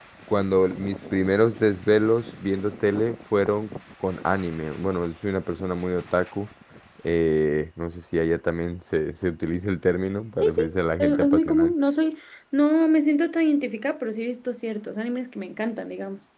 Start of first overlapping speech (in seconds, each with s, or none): 10.4 s